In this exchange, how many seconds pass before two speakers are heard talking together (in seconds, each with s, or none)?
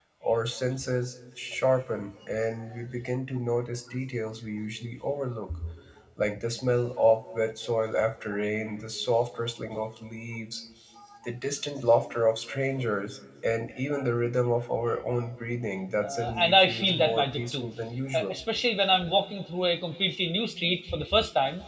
16.0 s